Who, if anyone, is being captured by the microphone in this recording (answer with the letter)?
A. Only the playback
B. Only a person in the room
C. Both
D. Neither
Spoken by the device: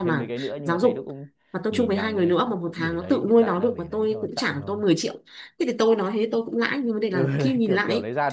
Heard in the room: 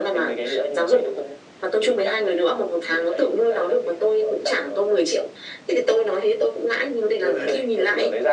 A